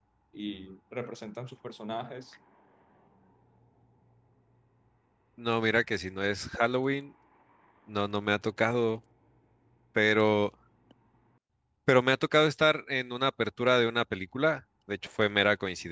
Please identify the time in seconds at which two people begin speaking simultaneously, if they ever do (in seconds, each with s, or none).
none